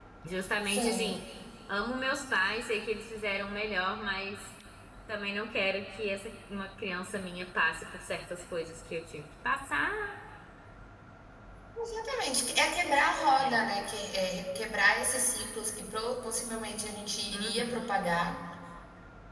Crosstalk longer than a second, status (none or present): none